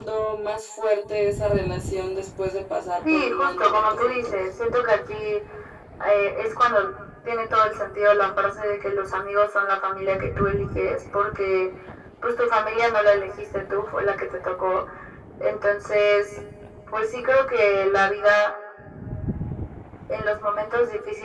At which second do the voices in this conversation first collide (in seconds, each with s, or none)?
3.0 s